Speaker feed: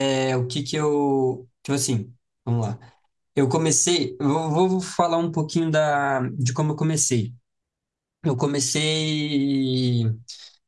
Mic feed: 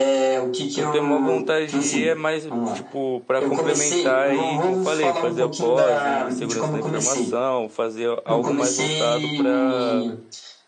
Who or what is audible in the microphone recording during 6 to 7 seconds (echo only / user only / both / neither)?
both